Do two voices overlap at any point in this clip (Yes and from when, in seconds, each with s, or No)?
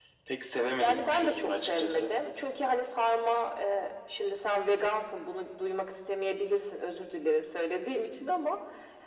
Yes, from 0.8 s